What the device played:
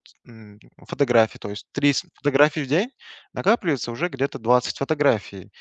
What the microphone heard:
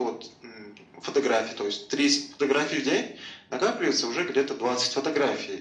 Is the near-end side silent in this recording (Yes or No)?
Yes